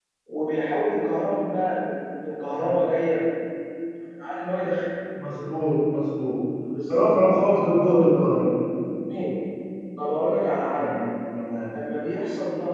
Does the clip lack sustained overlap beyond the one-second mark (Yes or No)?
Yes